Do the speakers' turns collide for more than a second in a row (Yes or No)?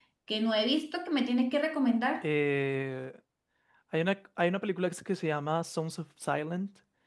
No